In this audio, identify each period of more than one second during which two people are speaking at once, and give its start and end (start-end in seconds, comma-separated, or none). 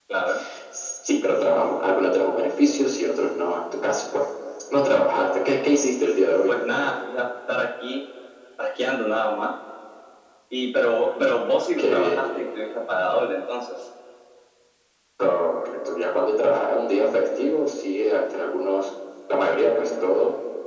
none